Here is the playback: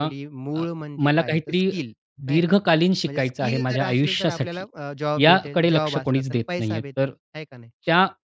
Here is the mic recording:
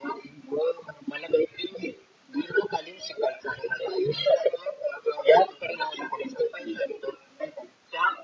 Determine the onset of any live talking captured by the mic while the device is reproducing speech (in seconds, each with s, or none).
none